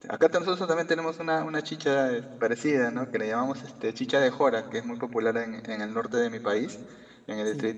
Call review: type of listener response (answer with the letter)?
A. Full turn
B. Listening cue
B